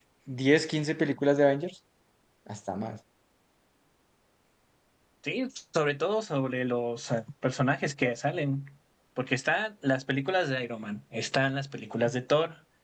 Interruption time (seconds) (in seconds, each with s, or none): none